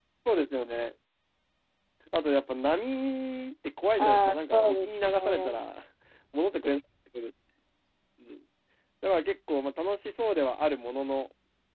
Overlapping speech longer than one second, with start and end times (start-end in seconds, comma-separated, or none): 4.0-5.6